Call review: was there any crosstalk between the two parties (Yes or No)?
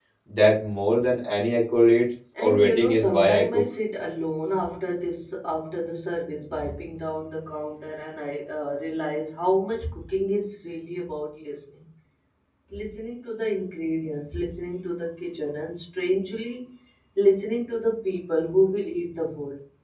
Yes